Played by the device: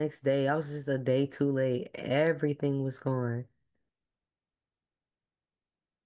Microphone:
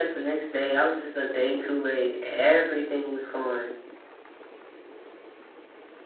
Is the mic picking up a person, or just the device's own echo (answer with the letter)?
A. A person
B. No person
B